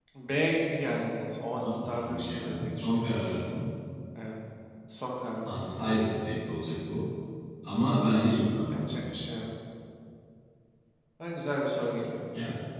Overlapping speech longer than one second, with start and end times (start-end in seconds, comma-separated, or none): 1.6-3.1